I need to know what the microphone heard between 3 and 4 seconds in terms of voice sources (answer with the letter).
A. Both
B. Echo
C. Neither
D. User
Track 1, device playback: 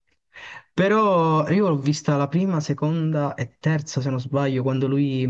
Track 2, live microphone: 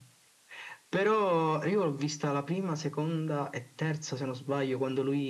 B